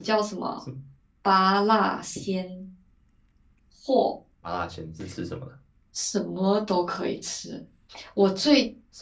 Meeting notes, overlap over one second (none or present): none